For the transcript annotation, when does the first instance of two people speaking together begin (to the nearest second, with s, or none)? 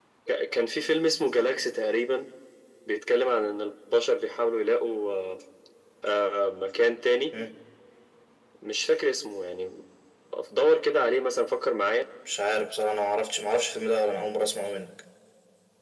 none